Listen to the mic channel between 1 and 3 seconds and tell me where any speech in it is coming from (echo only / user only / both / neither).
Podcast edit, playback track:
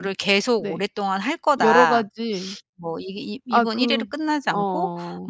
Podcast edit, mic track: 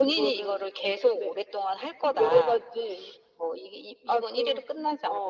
echo only